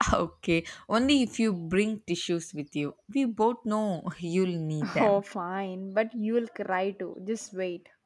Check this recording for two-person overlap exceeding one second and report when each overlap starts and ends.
none

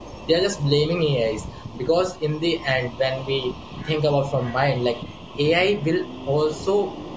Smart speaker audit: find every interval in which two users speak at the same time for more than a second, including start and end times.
none

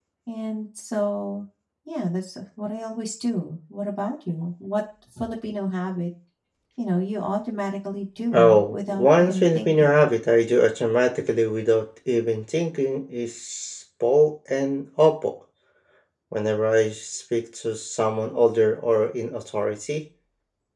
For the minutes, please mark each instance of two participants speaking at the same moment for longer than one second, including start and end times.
8.3-10.1

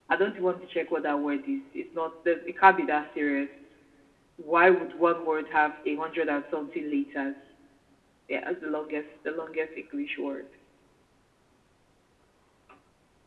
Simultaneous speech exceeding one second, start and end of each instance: none

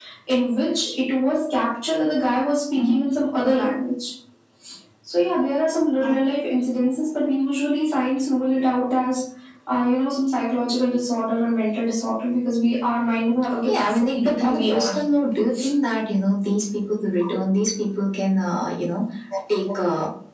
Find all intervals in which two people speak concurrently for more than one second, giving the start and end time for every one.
13.7-15.0

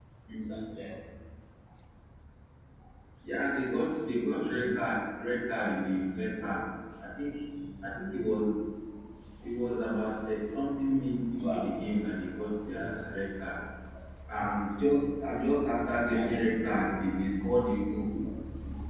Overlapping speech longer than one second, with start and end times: none

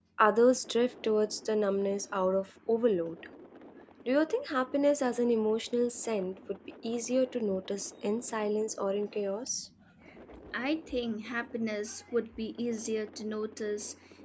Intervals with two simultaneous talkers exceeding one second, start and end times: none

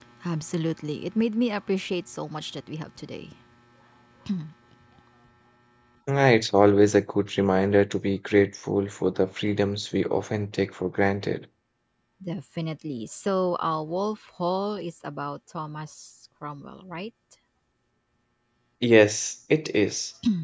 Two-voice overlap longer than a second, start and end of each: none

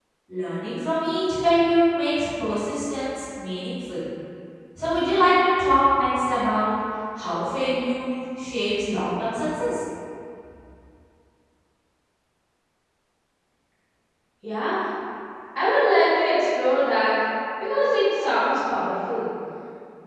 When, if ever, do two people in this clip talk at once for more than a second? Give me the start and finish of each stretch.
none

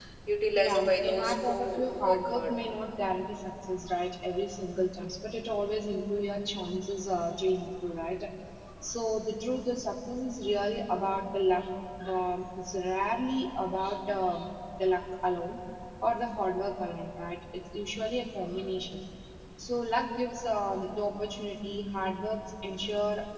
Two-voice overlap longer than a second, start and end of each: 0.6-2.5

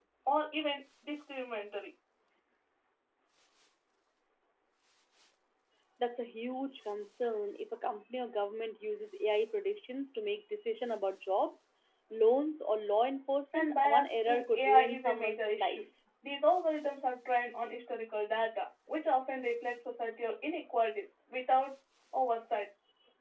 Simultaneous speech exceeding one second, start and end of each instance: 13.5-15.8

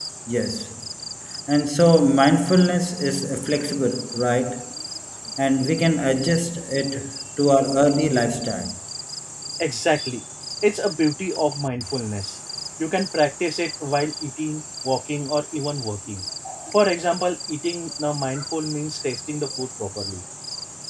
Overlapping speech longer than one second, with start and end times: none

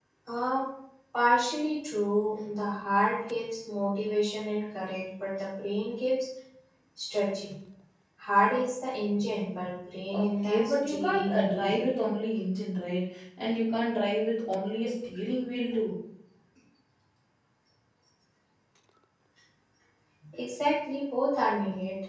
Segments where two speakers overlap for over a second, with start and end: 10.1-11.8

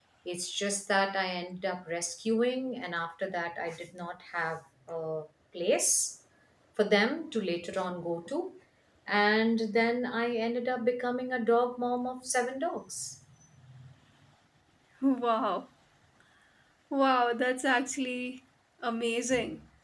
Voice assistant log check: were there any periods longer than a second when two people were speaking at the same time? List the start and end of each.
none

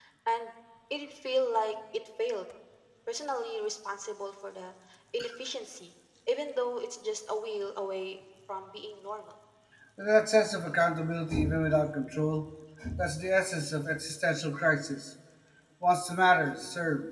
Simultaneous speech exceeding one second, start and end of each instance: none

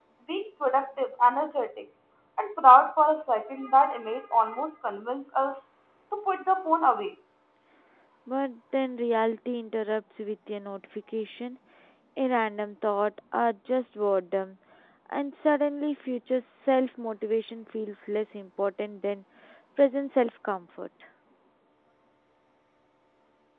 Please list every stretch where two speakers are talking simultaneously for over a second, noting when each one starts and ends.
none

